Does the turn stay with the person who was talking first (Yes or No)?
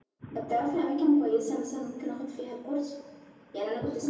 Yes